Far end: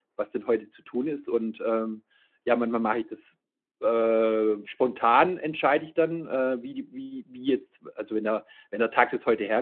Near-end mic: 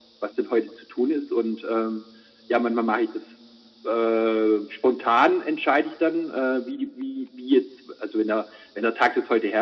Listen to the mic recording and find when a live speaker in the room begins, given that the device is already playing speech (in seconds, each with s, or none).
none